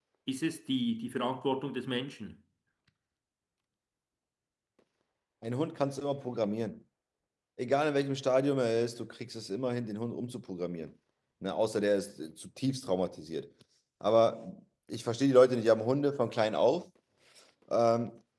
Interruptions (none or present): none